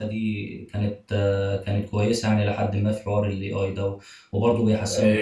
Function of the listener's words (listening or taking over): taking over